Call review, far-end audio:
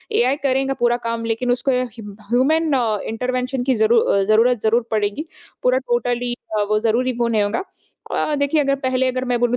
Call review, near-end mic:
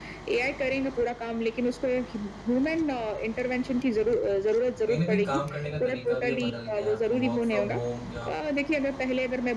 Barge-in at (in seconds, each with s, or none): 4.8 s